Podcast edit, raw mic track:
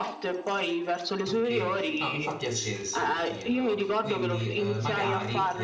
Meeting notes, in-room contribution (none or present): present